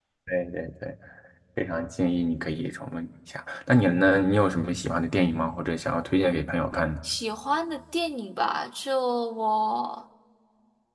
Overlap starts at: none

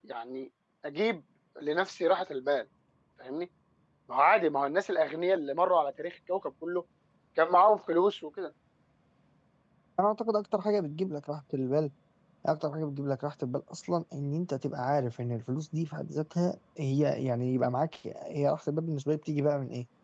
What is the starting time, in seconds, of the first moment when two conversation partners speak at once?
none

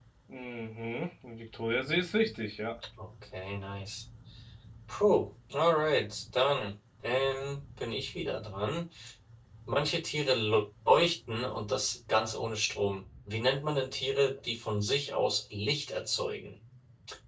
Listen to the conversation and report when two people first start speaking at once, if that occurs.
none

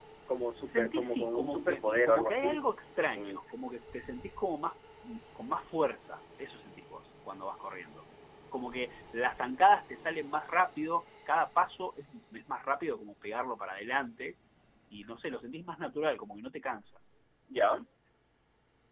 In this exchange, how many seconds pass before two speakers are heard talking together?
0.7 s

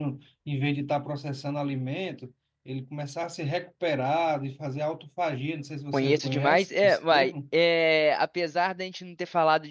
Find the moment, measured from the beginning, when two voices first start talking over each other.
5.9 s

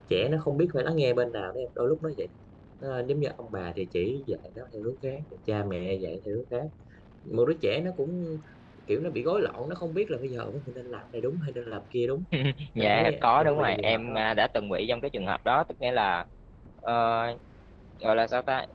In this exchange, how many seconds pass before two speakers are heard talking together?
12.8 s

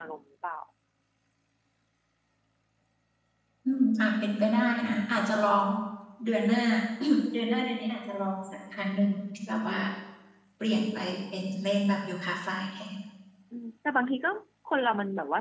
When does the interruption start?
none

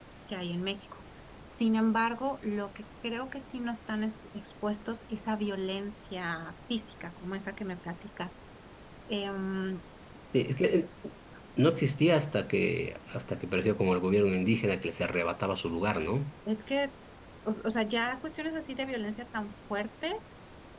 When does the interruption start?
none

